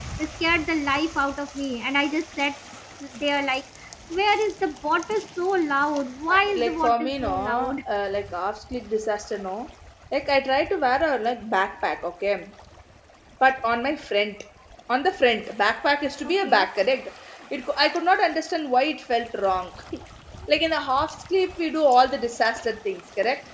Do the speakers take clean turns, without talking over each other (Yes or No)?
No